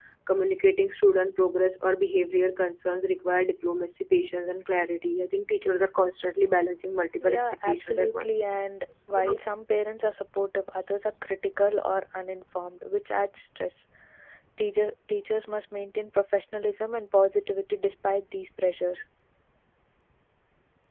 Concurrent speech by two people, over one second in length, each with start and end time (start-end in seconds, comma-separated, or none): 7.2-8.4